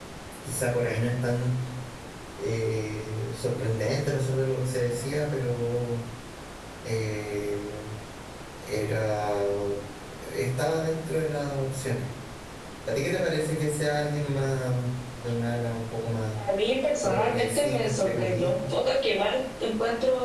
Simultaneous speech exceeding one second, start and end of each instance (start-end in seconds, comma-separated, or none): 17.0-18.5